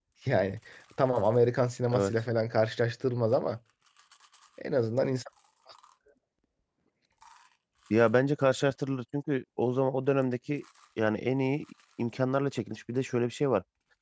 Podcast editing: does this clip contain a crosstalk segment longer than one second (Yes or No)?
No